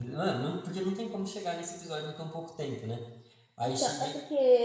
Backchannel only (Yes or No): No